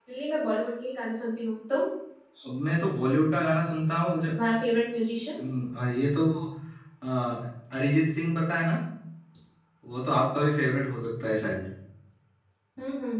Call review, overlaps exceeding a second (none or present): none